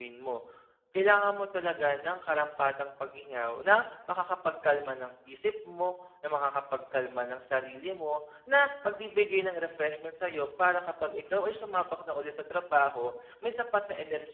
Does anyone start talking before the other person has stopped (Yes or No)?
No